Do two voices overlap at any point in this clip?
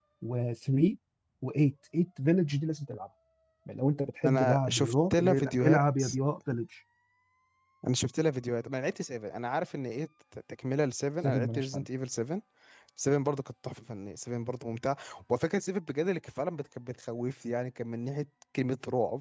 Yes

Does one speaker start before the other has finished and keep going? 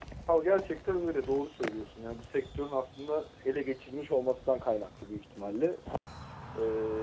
No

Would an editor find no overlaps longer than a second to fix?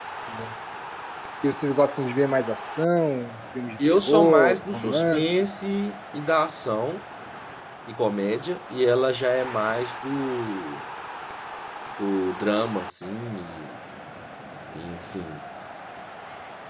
No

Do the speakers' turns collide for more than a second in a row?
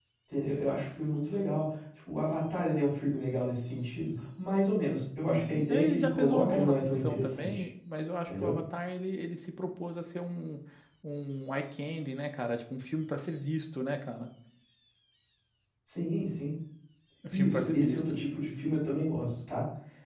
Yes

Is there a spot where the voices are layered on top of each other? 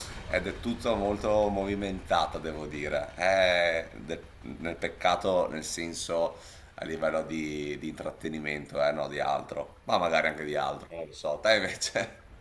No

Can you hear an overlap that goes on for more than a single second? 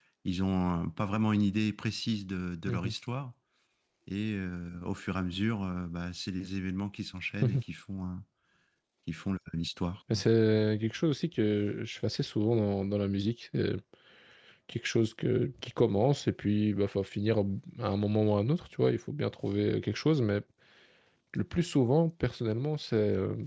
No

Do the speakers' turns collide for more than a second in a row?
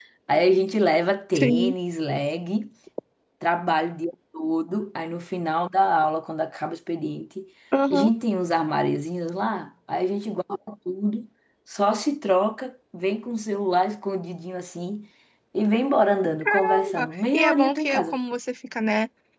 Yes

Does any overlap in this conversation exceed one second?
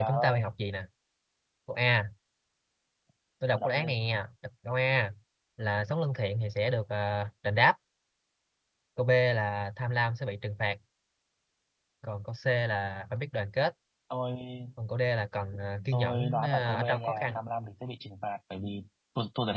Yes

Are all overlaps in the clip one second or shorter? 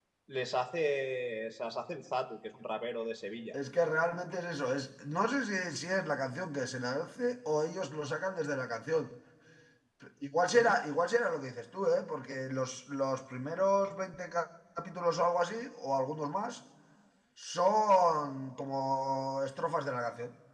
Yes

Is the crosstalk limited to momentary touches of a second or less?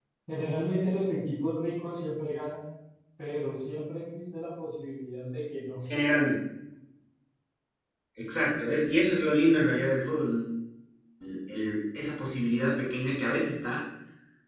Yes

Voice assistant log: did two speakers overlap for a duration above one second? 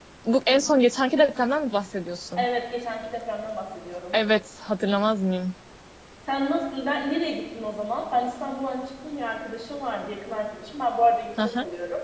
No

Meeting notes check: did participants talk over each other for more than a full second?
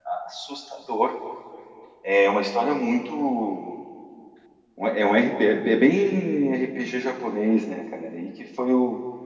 No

